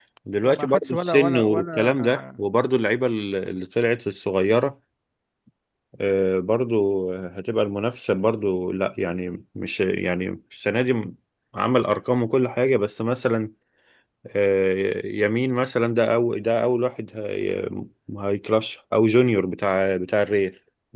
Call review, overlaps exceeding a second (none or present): present